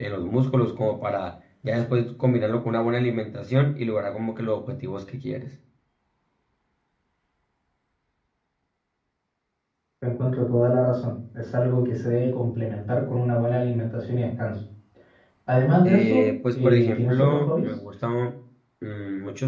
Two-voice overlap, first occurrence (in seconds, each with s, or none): 15.8 s